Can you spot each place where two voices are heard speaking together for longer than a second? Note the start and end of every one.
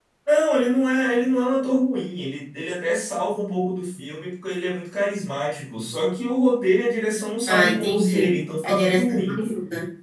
7.5-9.4

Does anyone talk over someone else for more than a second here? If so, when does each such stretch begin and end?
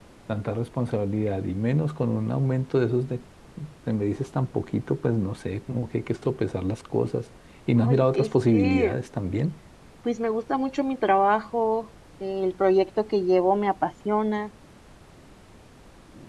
7.8-9.0

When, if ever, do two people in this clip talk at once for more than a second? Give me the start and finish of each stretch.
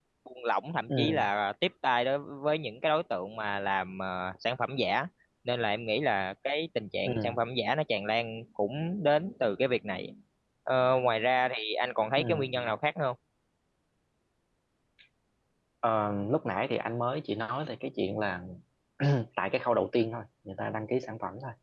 none

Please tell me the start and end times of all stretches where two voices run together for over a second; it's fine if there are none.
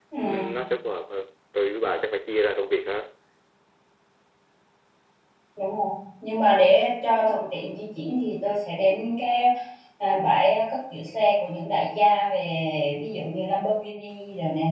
none

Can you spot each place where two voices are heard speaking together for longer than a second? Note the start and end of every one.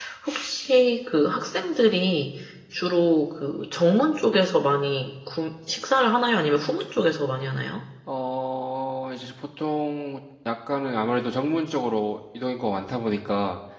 none

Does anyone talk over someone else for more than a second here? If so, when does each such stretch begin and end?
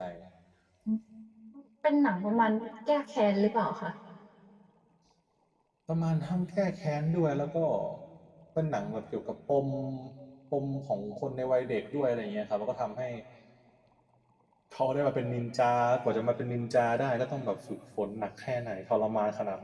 none

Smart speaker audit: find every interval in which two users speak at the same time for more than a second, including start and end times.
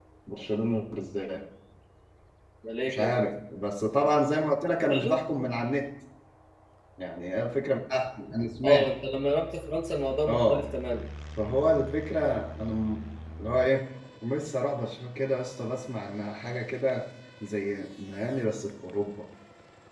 none

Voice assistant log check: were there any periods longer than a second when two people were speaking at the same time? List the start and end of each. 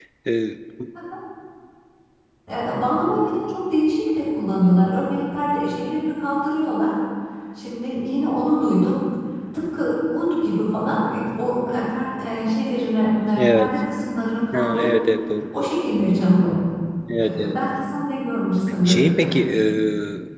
none

